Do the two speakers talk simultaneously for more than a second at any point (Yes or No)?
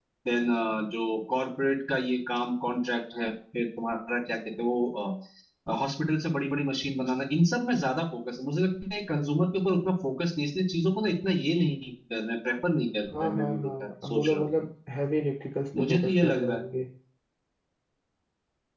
Yes